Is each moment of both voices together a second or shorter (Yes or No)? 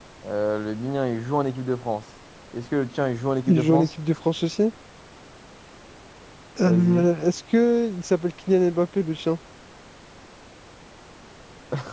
Yes